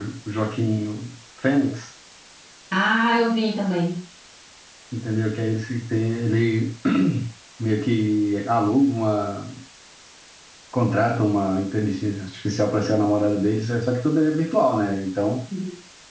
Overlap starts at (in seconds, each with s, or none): none